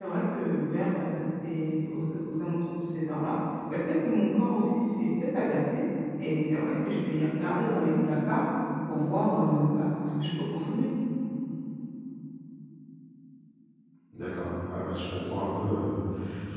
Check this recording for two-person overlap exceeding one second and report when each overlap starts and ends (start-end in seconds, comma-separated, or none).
none